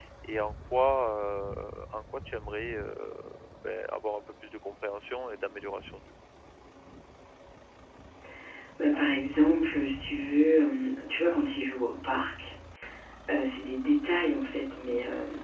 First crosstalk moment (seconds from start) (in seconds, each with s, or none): none